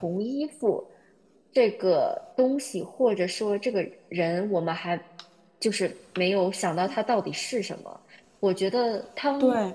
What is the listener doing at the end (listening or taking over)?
listening